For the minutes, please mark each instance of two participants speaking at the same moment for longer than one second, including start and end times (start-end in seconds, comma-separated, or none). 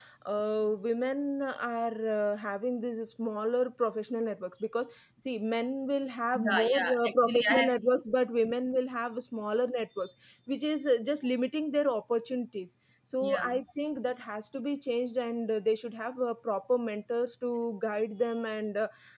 6.3-7.8